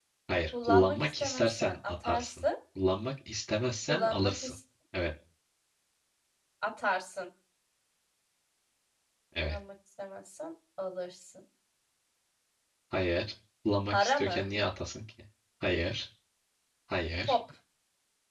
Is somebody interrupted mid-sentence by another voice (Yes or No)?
Yes